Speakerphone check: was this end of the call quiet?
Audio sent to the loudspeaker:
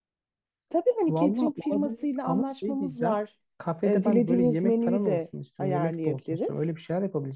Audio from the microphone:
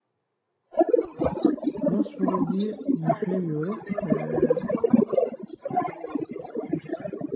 No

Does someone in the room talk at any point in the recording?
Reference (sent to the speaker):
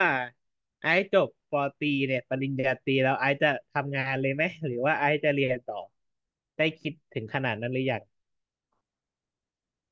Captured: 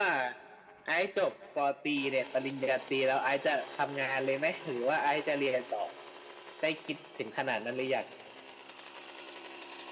No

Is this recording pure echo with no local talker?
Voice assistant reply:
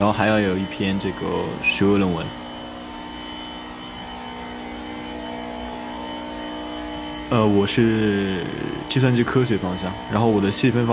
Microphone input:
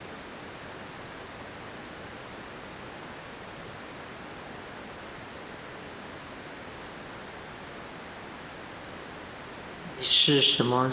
No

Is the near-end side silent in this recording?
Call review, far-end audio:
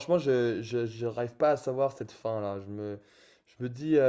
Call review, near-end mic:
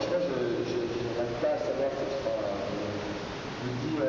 Yes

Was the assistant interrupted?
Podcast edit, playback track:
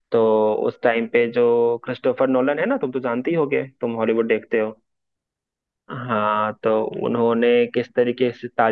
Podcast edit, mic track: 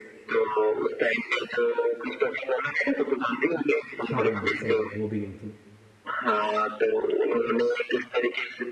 Yes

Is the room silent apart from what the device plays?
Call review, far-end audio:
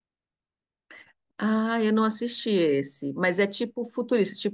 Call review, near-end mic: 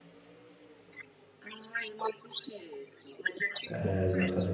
No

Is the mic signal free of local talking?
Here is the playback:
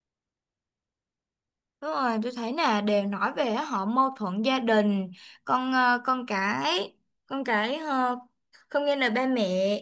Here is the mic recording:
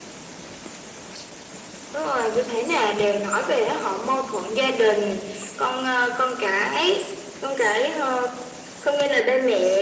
Yes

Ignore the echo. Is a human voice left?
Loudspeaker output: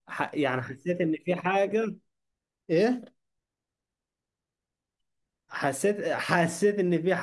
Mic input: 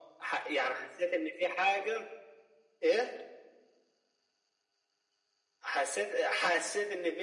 No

